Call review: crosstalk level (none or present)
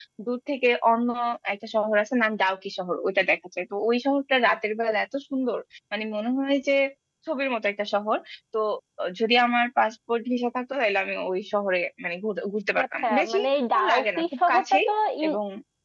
present